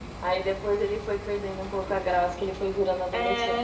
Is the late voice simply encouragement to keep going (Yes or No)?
No